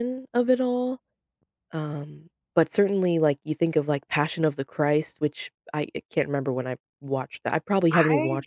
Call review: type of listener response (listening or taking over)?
taking over